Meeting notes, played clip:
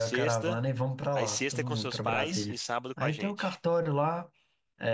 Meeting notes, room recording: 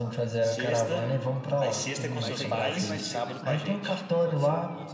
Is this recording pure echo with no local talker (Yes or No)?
No